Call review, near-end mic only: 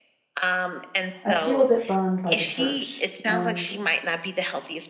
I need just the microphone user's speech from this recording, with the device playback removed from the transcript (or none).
I feel a bit burned by the church, and